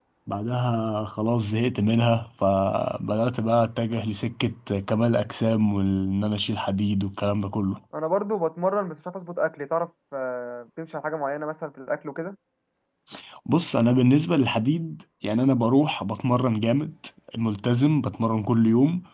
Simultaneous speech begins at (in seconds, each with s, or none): none